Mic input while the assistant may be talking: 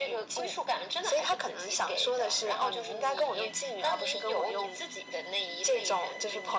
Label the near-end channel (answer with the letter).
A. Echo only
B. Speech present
A